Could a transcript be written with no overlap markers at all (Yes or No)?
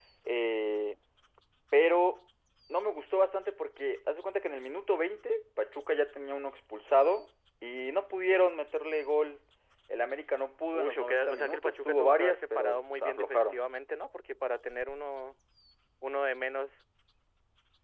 No